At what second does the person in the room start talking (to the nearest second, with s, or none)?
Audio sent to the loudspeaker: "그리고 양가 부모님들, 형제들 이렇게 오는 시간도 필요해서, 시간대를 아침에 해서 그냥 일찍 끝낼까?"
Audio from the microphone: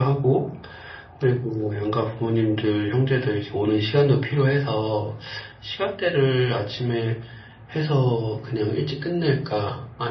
none